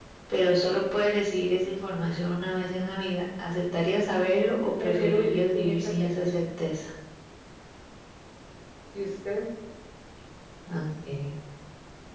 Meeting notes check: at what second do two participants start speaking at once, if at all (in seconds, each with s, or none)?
4.8 s